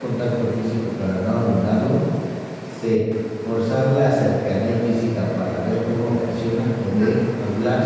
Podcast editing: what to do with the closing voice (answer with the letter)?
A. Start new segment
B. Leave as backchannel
B